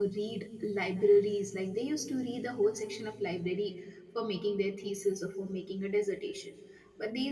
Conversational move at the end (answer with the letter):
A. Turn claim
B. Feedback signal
B